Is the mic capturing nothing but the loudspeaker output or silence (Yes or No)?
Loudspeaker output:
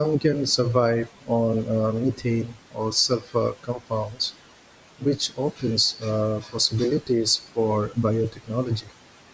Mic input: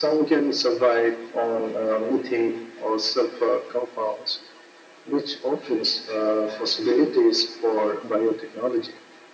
Yes